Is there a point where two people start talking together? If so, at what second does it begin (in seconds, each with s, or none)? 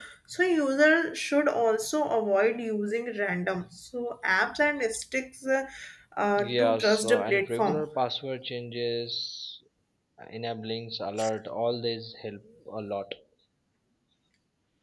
6.4 s